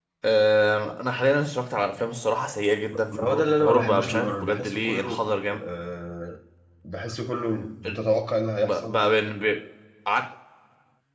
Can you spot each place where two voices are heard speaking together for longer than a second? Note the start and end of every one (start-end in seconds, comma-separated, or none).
2.9-5.2